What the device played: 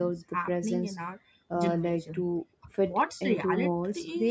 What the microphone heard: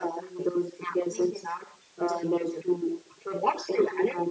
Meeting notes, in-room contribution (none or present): none